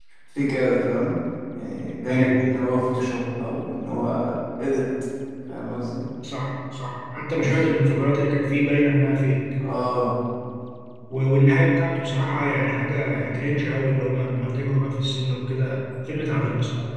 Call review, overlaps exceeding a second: none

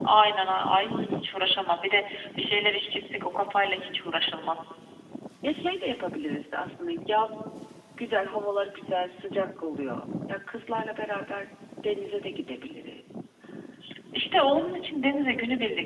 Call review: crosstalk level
none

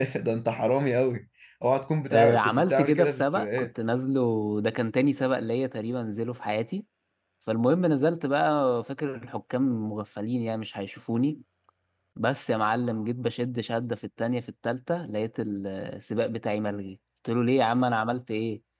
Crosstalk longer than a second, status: present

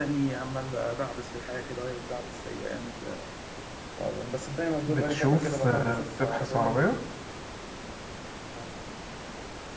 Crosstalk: present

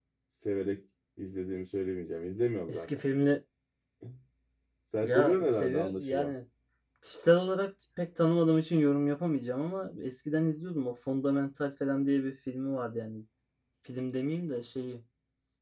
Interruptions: present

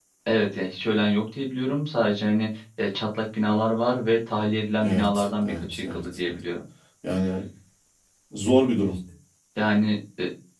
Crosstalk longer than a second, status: present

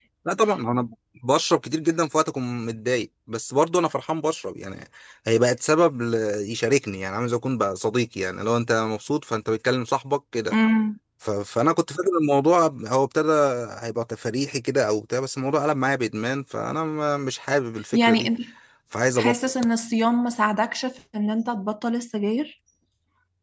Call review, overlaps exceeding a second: none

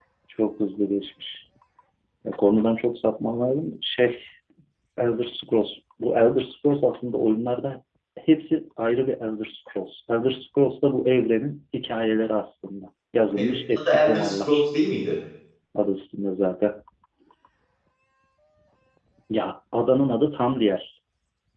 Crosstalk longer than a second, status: present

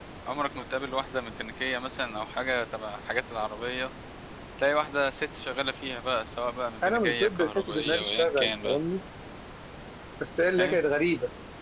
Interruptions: present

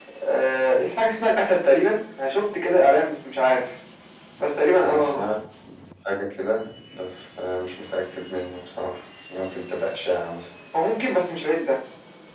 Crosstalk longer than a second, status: none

